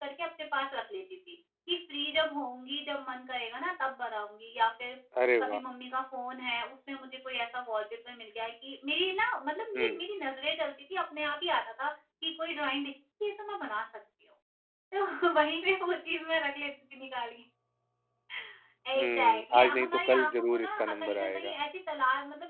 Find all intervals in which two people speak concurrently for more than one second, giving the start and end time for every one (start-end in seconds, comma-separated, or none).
18.9-21.5